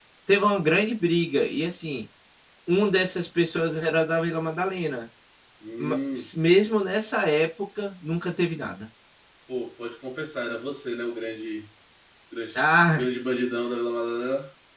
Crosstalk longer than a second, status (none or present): none